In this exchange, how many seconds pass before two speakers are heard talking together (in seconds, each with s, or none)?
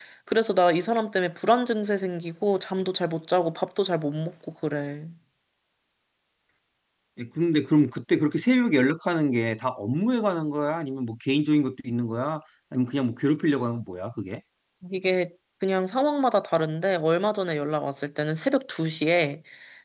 none